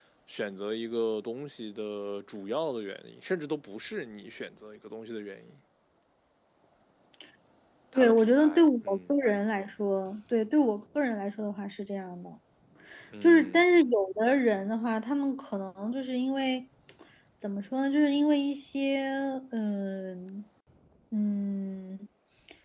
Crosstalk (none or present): present